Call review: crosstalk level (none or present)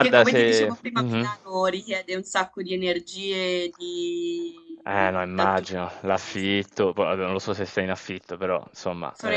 present